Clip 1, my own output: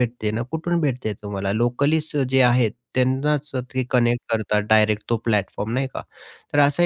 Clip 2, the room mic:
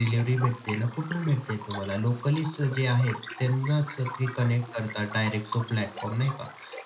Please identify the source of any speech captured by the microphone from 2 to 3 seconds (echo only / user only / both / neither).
echo only